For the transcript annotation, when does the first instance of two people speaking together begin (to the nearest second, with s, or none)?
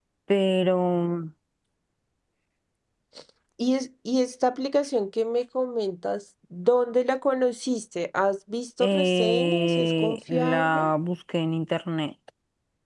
9 s